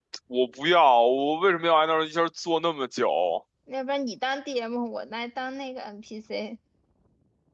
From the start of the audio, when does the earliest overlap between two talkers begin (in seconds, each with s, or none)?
none